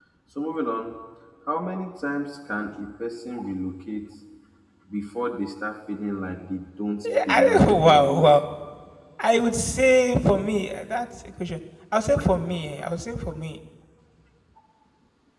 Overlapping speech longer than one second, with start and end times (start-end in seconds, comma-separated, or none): 7.0-8.4